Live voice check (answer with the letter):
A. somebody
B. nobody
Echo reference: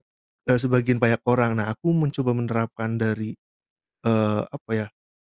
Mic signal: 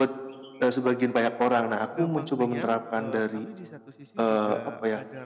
A